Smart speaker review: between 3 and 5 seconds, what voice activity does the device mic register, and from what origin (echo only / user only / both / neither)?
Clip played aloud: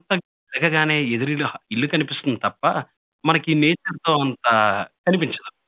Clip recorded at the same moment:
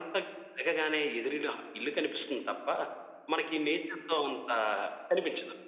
echo only